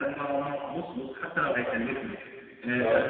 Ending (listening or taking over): listening